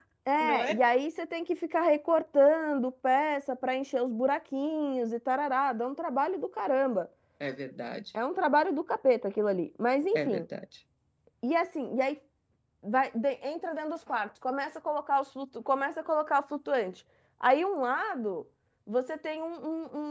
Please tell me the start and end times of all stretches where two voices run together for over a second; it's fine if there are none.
none

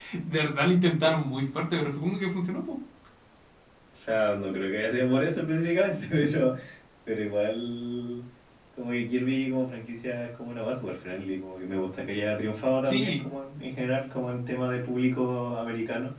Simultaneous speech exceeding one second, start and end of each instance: none

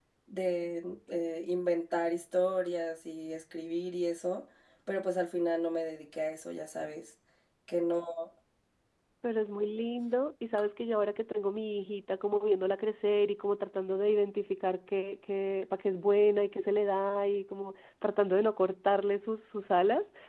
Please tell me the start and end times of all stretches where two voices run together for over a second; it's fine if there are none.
none

